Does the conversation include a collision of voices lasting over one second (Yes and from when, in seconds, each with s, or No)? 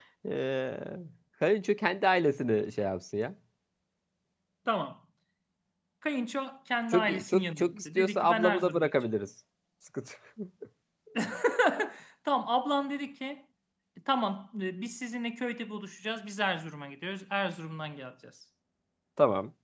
Yes, from 6.9 s